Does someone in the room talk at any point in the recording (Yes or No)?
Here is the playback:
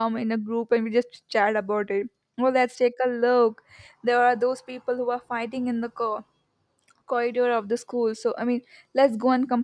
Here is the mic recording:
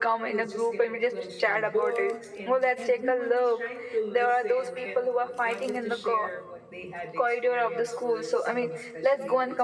Yes